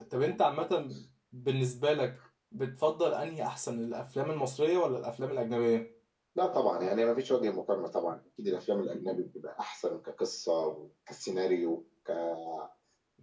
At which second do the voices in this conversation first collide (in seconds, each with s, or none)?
none